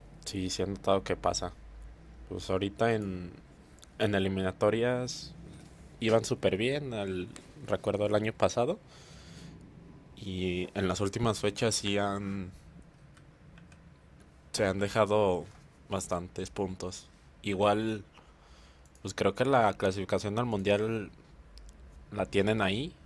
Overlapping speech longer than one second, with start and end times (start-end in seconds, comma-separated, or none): none